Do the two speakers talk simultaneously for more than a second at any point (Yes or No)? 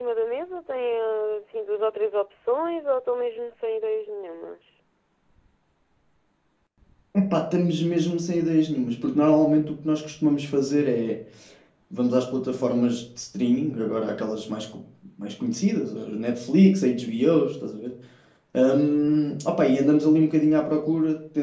No